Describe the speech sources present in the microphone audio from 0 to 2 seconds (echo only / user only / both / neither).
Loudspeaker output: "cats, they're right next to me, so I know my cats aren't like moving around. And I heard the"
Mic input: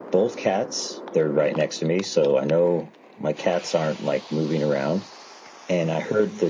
echo only